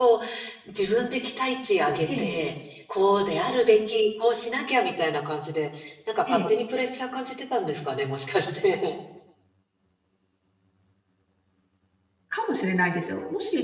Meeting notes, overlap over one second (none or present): none